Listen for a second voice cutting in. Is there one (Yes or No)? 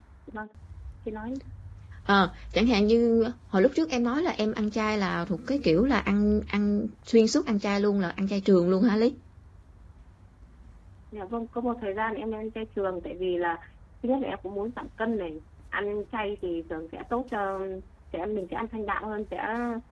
No